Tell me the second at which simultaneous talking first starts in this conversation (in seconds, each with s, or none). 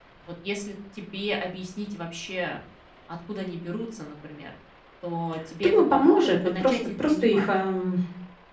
5.6 s